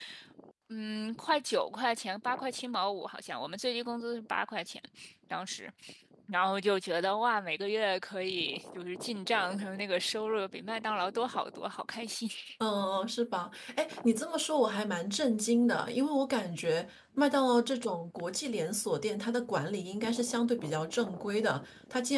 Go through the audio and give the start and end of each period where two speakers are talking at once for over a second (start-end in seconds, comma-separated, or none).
none